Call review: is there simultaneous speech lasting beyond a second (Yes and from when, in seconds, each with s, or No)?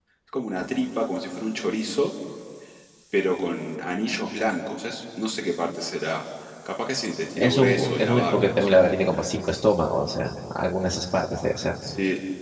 Yes, from 7.4 s